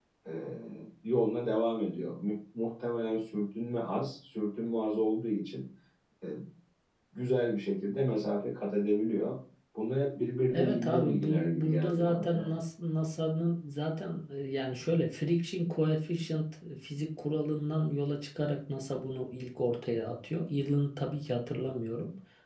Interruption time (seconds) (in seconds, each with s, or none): 10.5 s